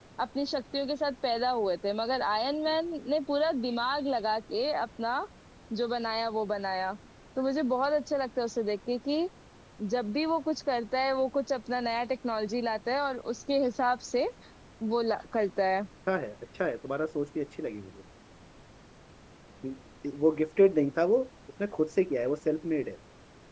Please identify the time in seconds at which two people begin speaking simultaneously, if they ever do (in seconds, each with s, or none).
none